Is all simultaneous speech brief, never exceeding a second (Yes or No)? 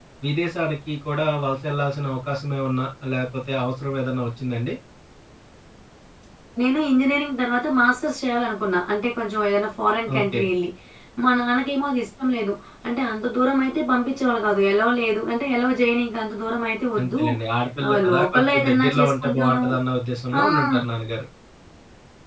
No